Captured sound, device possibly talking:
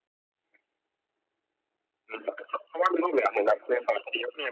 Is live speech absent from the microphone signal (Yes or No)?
Yes